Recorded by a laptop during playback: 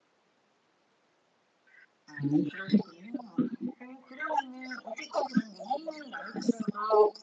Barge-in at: none

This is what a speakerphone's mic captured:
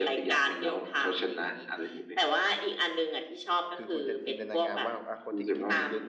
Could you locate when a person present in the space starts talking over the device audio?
3.7 s

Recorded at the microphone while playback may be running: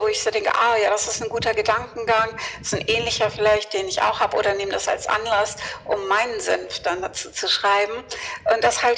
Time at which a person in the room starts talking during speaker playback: none

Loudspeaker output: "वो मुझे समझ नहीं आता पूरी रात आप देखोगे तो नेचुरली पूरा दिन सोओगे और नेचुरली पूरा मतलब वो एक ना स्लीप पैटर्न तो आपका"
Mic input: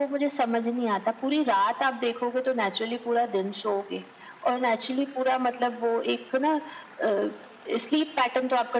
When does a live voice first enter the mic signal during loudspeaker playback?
none

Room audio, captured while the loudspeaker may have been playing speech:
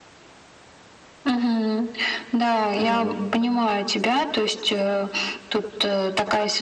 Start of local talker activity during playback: 2.6 s

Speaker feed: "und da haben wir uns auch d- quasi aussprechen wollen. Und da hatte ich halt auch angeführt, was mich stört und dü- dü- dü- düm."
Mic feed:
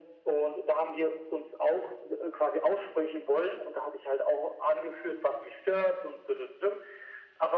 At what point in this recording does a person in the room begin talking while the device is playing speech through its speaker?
none

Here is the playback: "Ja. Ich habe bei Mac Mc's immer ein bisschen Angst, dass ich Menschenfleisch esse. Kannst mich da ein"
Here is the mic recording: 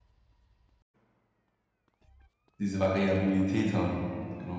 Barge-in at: 2.6 s

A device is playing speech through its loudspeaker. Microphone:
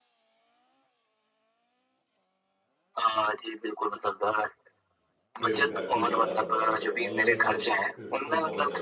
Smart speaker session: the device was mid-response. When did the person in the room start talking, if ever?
5.4 s

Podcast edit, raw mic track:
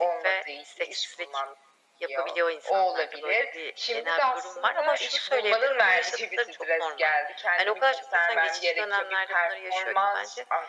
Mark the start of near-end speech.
none

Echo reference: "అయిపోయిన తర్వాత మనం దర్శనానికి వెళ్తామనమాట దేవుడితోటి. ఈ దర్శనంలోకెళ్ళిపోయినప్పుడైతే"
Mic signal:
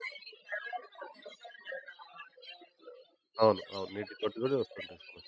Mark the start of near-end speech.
3.4 s

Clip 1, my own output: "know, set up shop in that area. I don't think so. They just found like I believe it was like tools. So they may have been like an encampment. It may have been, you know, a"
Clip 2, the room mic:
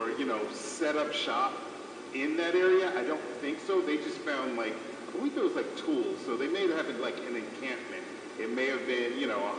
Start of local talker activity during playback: none

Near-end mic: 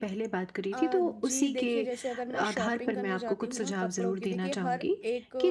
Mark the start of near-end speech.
0.7 s

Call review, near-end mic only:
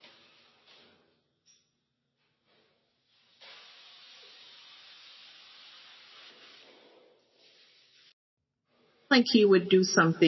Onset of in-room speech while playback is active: 8.9 s

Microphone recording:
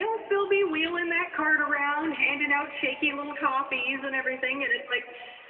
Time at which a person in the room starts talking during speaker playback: none

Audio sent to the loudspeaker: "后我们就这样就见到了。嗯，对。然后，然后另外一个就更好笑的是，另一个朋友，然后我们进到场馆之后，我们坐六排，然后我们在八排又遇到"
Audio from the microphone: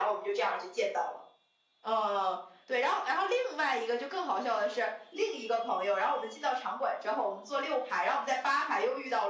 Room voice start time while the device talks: none

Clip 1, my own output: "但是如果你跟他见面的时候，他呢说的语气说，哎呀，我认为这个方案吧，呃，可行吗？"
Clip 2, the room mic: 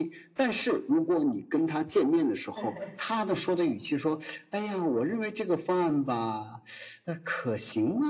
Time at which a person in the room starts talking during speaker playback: 2.5 s

